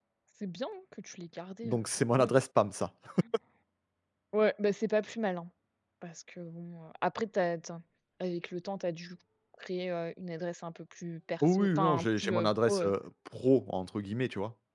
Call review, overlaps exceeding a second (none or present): present